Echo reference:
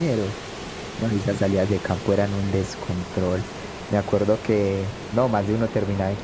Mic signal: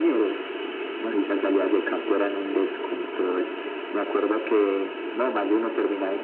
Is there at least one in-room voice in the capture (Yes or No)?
No